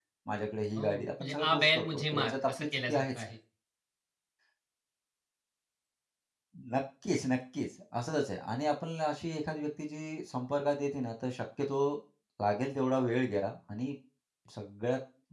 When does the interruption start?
1 s

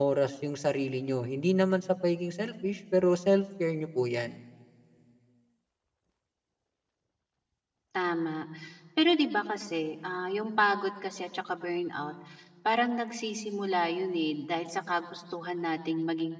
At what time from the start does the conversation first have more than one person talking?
none

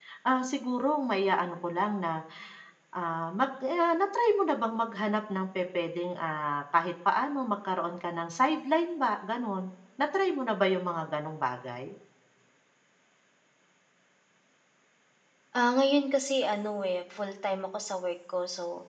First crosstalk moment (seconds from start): none

